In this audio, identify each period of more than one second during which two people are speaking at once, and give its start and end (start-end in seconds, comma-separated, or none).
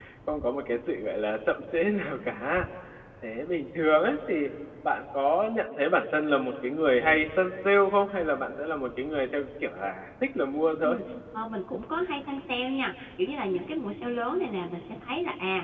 none